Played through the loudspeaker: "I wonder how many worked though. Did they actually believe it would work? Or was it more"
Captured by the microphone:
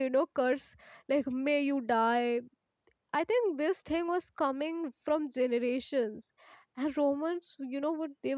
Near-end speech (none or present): present